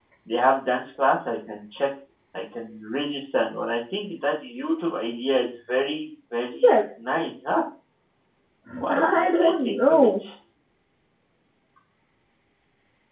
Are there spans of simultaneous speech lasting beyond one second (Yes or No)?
Yes